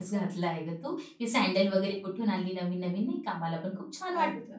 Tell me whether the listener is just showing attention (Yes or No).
No